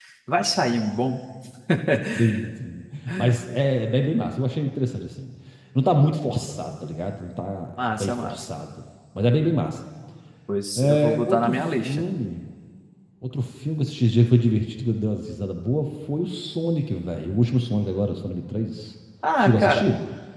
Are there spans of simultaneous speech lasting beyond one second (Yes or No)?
Yes